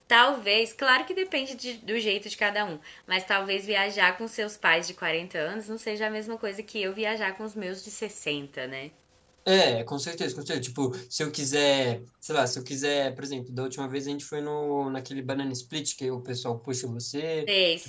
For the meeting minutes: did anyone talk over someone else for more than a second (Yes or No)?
No